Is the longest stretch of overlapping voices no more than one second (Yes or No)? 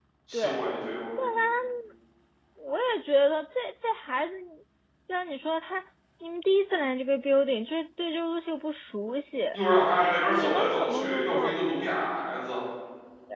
No